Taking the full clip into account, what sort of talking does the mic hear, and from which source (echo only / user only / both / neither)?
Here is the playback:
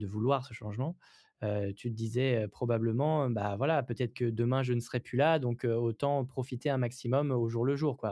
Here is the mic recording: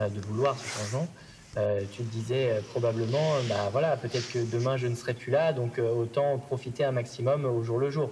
echo only